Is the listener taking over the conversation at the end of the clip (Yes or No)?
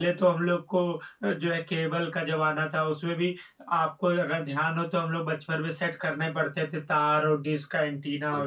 No